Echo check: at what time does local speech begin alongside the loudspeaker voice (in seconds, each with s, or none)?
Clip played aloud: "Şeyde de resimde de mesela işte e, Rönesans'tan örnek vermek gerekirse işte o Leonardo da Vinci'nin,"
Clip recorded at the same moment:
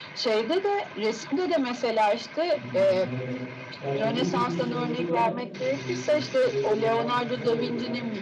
2.5 s